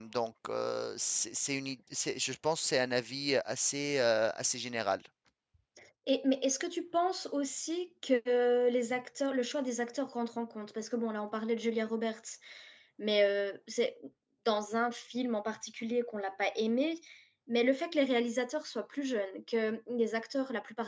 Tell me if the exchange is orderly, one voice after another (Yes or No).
Yes